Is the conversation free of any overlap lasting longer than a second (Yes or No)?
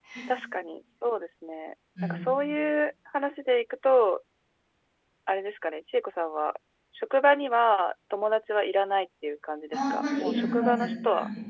No